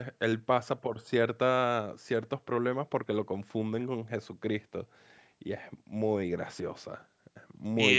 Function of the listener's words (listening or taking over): taking over